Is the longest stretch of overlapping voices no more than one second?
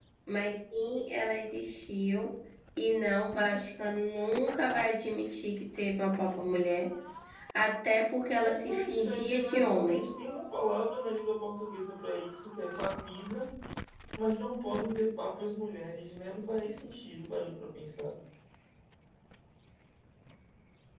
No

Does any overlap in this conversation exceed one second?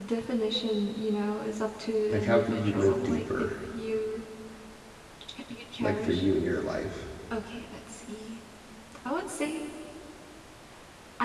Yes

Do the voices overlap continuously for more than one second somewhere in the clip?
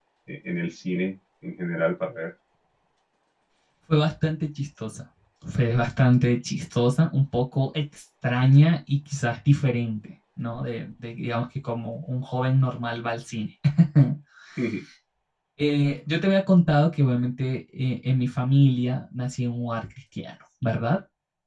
No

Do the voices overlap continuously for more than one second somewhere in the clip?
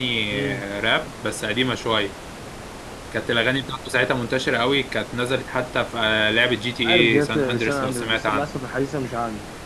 Yes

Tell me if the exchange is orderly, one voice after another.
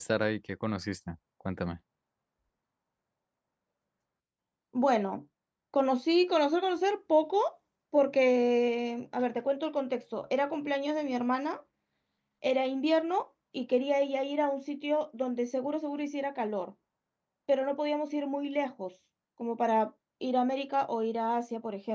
Yes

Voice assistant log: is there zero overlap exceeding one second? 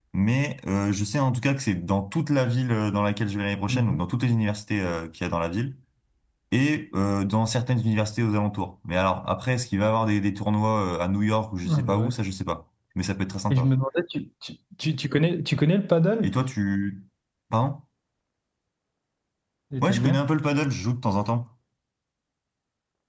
Yes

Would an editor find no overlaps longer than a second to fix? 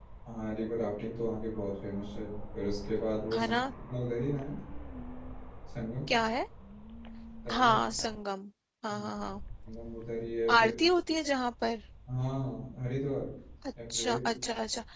Yes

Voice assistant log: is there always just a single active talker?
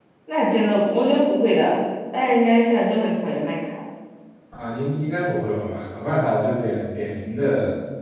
Yes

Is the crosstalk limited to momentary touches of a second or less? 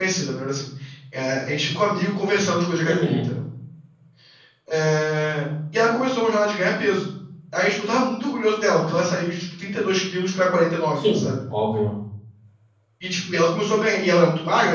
Yes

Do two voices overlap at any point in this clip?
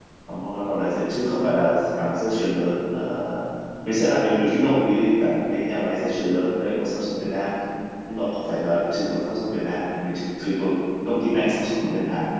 No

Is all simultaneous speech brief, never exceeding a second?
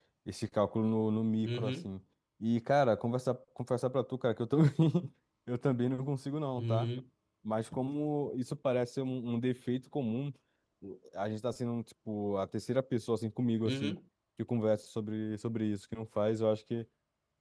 Yes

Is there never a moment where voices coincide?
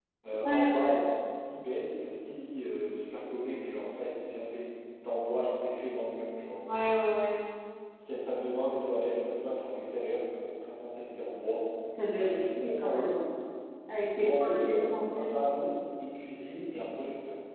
No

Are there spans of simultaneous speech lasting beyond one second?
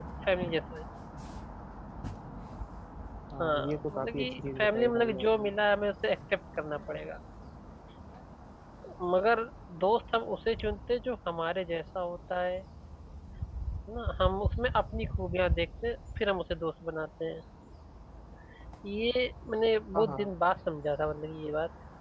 Yes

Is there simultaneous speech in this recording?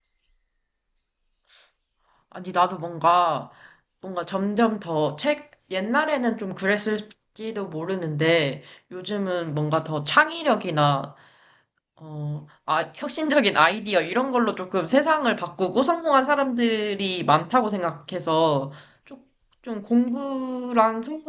No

